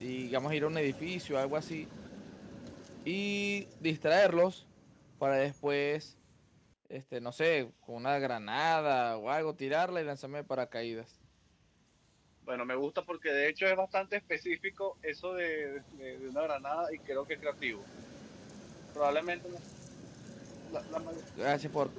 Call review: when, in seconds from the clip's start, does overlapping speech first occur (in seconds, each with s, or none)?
none